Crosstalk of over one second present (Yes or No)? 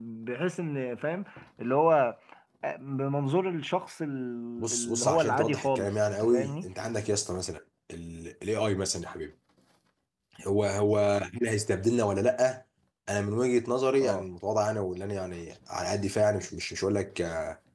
Yes